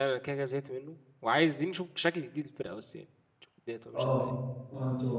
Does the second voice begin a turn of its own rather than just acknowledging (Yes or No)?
Yes